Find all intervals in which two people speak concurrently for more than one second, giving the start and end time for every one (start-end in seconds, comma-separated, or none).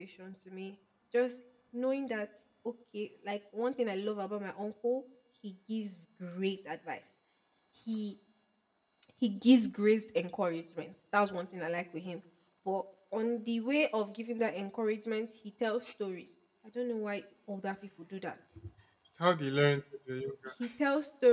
none